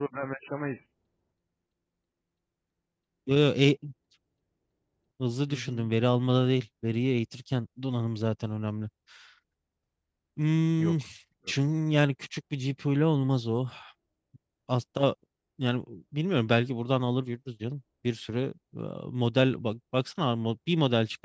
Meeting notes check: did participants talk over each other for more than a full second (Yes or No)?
No